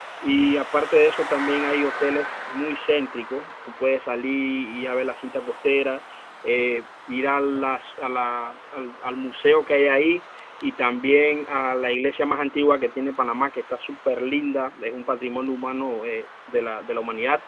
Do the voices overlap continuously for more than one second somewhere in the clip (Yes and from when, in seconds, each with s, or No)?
No